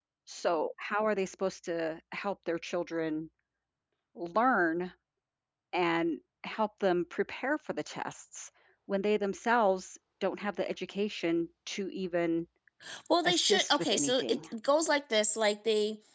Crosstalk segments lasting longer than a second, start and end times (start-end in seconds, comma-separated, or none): 13.2-14.4